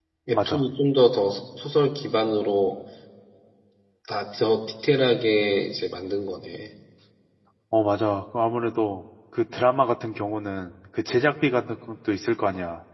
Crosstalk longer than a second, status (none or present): none